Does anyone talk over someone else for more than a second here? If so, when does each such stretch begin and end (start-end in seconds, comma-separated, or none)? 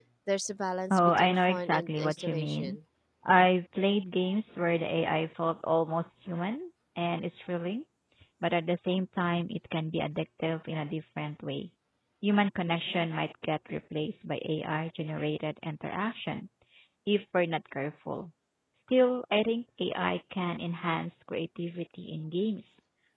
0.9-2.8